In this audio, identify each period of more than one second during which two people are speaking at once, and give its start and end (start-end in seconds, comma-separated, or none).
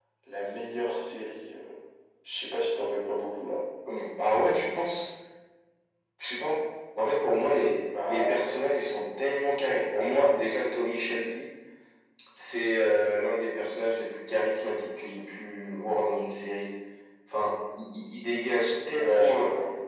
none